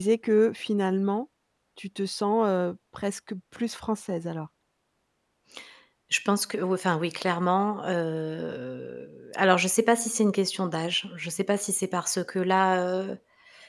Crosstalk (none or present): none